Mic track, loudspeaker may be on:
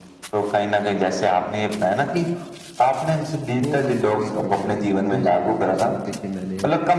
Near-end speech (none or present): present